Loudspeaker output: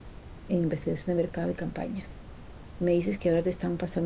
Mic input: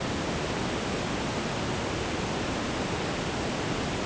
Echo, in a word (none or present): none